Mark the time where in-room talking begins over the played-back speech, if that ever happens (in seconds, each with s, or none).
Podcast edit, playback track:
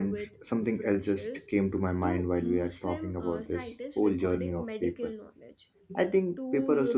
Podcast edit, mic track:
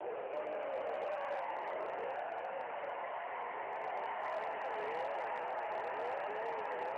none